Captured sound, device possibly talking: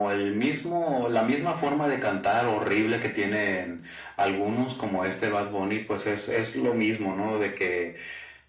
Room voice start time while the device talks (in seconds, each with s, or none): none